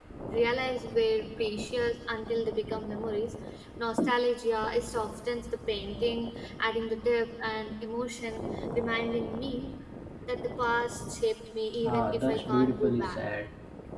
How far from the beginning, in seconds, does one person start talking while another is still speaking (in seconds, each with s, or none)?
11.8 s